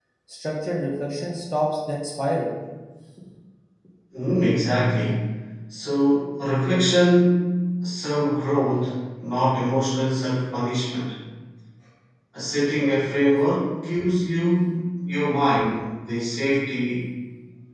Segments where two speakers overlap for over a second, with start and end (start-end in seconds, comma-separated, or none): none